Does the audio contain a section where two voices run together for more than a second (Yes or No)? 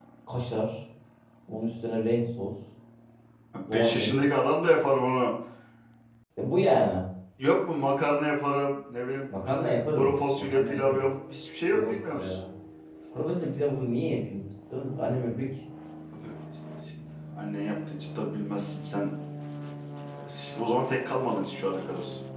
Yes